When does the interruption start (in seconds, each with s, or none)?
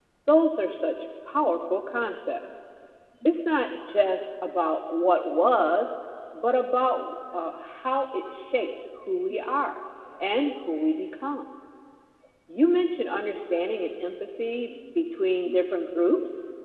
none